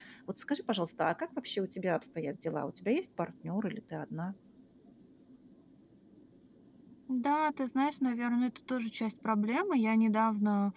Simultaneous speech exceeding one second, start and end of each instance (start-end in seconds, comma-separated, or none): none